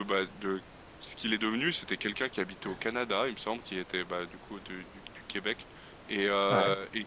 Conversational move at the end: listening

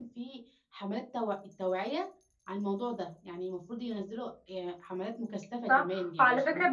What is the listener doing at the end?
taking over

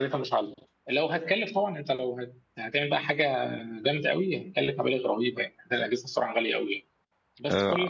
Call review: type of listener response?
listening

